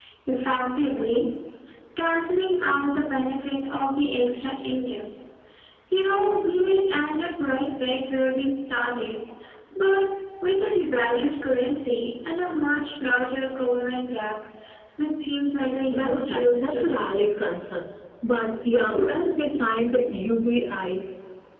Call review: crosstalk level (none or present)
present